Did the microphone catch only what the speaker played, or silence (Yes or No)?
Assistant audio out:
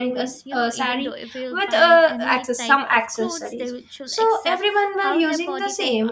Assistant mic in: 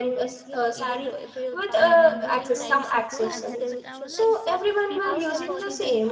No